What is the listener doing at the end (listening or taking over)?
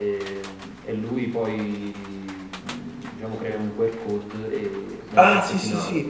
taking over